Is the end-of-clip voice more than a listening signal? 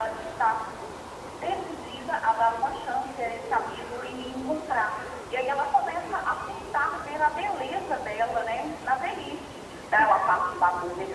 No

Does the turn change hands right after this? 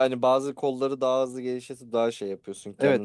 Yes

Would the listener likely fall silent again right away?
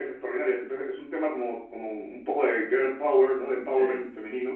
Yes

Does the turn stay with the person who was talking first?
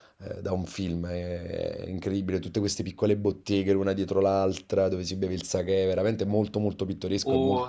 No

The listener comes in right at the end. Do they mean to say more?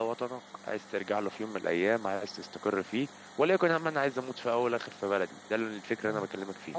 Yes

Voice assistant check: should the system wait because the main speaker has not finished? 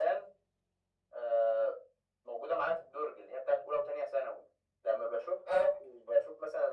Yes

